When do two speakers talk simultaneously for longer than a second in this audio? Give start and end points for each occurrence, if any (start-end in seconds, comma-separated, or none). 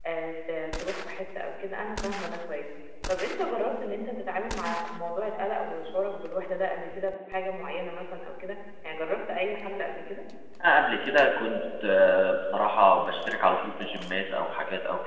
none